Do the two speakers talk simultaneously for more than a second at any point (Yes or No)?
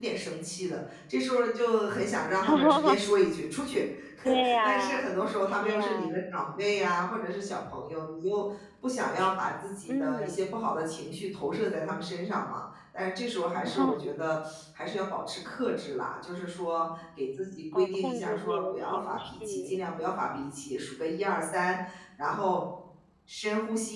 Yes